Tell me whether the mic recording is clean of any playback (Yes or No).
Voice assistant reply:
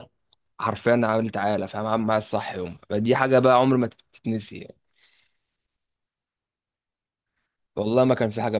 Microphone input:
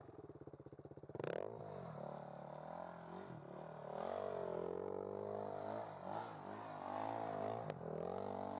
Yes